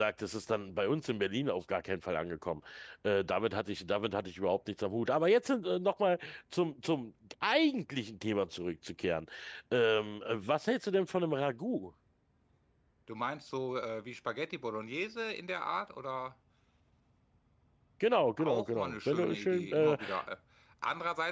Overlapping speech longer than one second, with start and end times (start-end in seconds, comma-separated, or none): 18.4-20.0